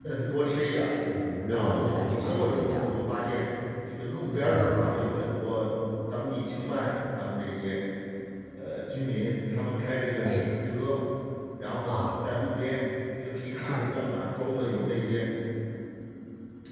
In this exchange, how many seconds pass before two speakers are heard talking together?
1.5 s

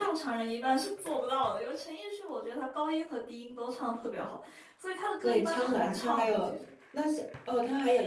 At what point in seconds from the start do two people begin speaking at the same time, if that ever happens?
5.2 s

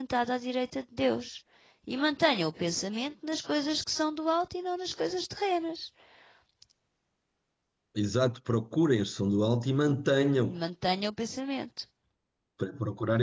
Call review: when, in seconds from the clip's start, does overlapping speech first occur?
none

